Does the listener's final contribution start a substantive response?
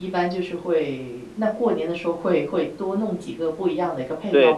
Yes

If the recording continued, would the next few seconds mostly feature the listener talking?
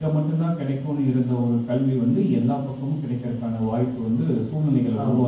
Yes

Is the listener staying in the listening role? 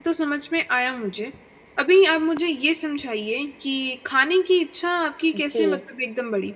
Yes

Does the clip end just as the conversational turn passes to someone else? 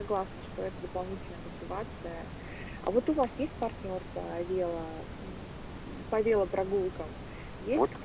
Yes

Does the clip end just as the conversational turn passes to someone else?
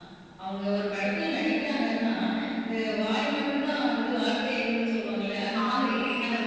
No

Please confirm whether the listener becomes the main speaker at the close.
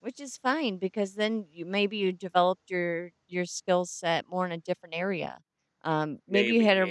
No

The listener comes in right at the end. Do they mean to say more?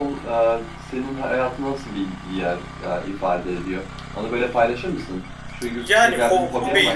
Yes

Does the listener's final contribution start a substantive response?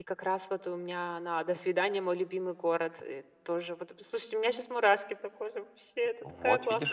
Yes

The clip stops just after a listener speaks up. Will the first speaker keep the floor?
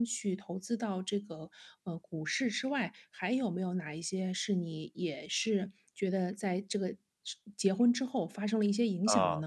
No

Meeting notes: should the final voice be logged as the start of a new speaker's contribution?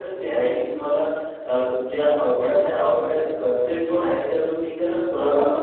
No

